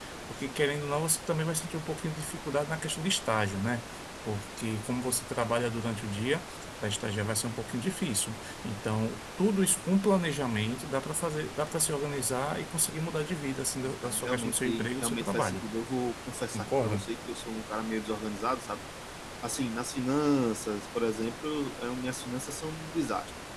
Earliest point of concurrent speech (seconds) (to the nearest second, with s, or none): 14 s